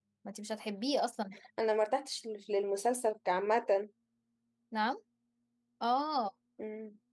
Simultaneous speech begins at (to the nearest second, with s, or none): none